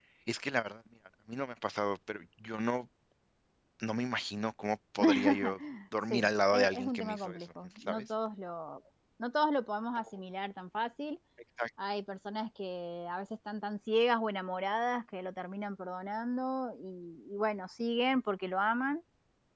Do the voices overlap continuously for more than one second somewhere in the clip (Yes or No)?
Yes